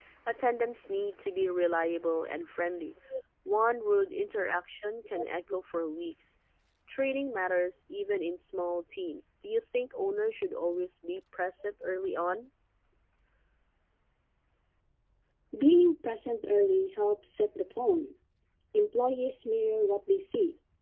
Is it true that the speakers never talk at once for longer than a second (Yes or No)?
Yes